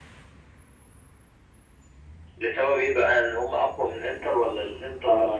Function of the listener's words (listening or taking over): taking over